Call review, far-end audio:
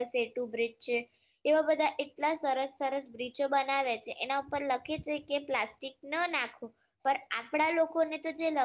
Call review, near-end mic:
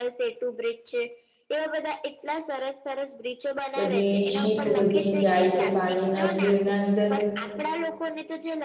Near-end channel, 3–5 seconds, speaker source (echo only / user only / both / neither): both